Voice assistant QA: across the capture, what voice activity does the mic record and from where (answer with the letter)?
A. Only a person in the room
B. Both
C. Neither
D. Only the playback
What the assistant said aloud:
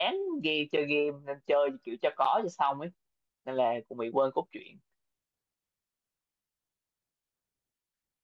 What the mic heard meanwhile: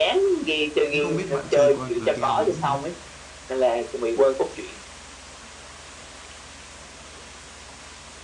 B